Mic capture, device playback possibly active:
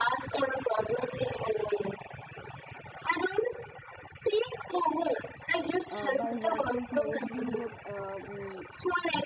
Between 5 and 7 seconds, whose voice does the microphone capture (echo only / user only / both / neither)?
both